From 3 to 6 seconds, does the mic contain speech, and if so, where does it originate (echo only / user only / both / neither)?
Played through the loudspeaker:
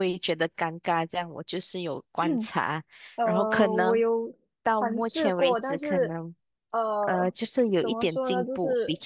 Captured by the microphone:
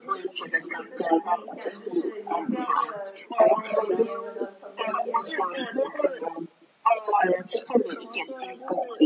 both